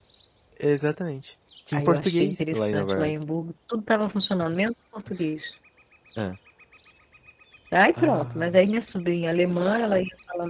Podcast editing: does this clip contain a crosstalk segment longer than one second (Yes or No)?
Yes